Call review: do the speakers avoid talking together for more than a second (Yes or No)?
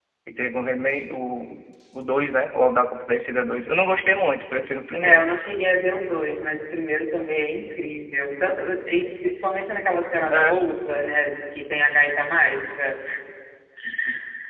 Yes